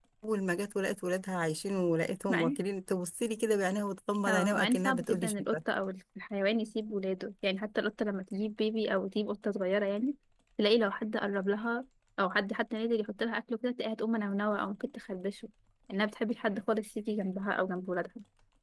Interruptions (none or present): present